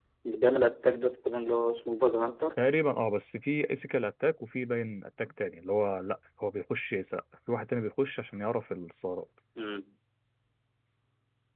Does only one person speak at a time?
Yes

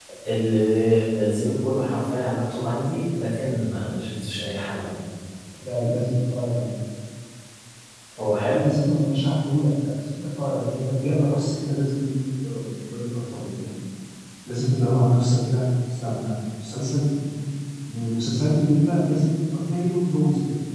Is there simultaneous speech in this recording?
No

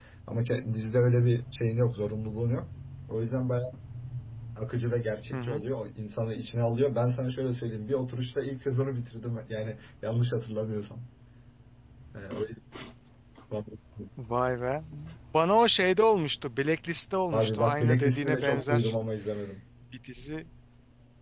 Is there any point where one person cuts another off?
Yes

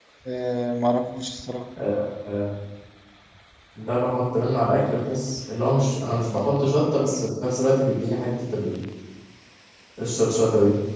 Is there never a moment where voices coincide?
Yes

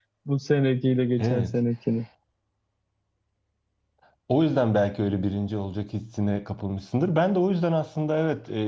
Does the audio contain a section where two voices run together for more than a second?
No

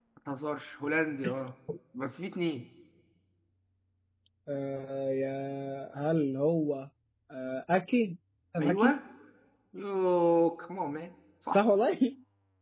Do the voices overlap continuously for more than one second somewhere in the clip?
No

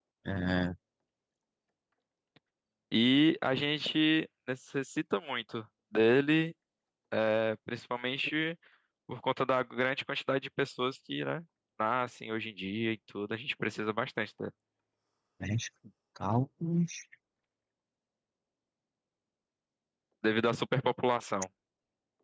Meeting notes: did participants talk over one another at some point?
No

